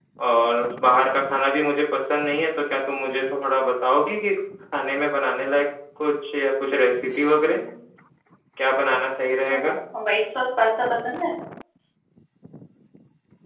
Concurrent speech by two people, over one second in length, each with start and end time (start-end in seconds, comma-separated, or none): none